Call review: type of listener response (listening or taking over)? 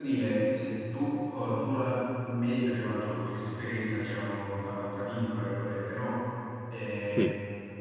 listening